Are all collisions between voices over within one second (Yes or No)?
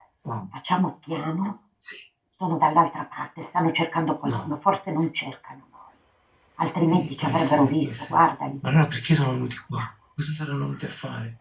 No